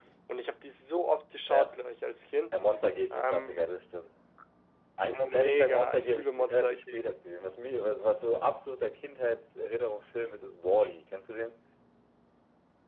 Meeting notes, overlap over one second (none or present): present